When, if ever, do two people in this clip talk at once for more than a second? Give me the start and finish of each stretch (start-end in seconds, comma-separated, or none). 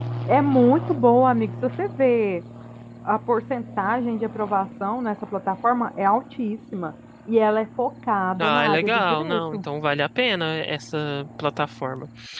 8.4-9.6